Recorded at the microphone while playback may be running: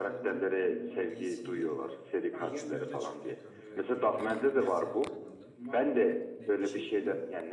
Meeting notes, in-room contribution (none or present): present